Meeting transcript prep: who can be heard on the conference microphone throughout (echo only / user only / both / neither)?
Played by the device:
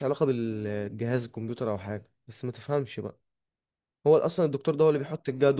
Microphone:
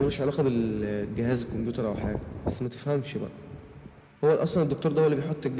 echo only